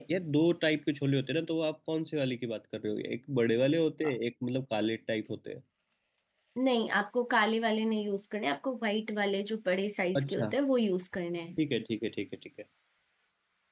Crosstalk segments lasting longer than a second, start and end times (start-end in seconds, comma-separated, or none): none